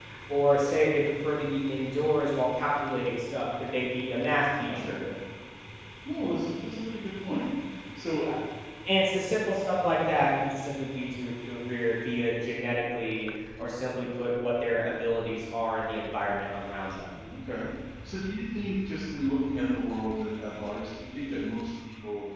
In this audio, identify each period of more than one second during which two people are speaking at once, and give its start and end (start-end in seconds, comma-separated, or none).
none